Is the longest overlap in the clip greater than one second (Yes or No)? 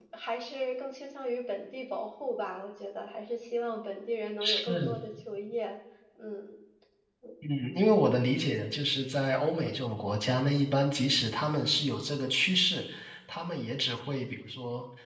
No